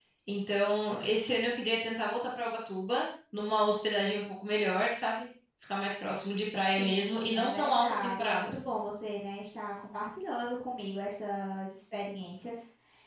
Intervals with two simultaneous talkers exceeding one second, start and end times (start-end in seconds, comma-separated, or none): 6.6-8.6